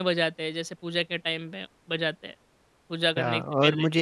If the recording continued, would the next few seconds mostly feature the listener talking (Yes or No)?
Yes